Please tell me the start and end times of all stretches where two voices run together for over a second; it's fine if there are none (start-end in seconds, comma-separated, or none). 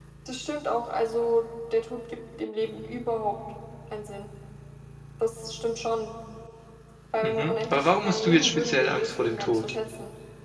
7.2-9.6